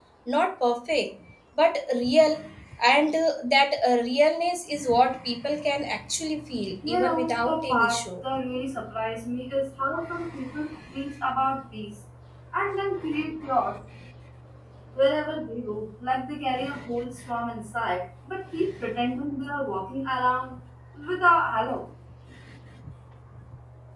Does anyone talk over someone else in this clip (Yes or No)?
Yes